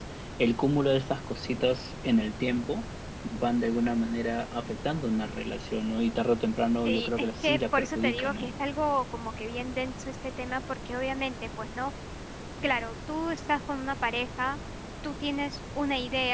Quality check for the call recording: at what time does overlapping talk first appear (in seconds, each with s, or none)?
6.8 s